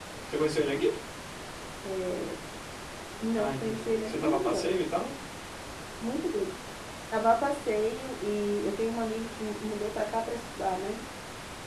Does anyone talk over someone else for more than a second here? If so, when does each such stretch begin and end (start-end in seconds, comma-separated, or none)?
3.4-4.7